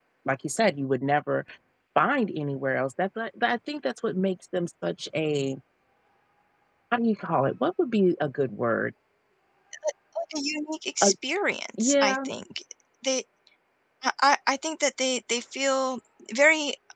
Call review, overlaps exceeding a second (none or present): none